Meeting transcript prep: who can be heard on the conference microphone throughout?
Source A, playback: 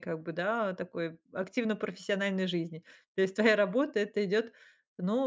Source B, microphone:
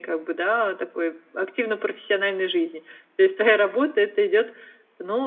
echo only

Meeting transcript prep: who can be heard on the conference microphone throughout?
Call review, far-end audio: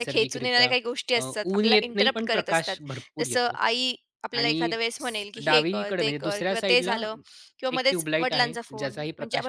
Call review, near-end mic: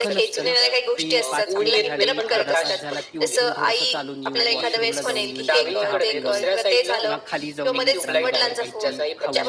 both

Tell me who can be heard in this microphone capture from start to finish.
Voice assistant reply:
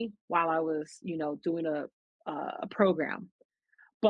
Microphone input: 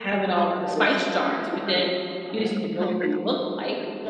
both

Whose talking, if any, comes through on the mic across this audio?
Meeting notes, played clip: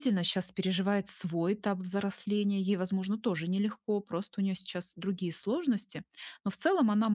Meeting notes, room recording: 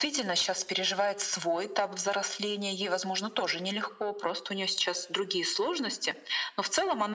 echo only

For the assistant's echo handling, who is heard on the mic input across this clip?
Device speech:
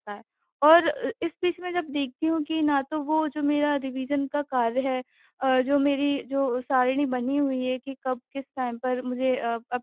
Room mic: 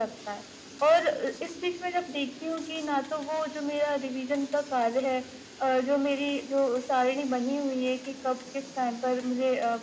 echo only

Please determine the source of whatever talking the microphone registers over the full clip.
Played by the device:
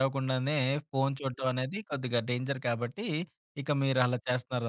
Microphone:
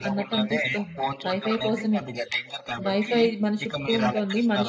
both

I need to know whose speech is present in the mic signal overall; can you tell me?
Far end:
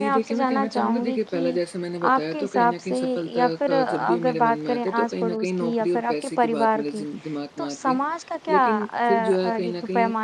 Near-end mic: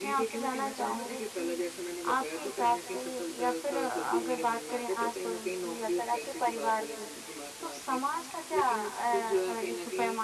echo only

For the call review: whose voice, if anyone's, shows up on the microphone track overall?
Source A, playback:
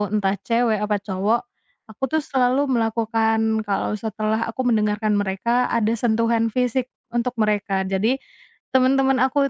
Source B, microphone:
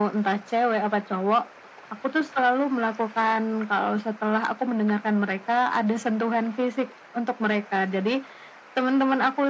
echo only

